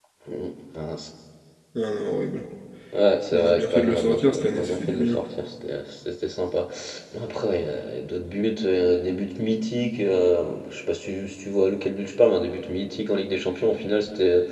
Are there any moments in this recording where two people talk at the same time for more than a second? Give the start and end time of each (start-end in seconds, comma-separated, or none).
3.3-5.2